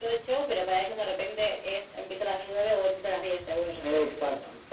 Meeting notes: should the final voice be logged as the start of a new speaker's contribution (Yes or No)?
Yes